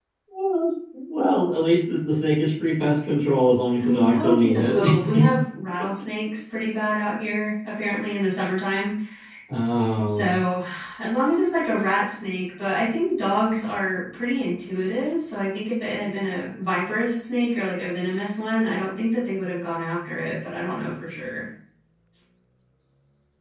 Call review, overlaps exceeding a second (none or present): present